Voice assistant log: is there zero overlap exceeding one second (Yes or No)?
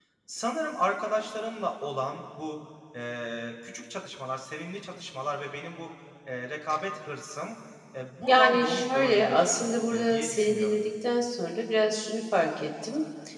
No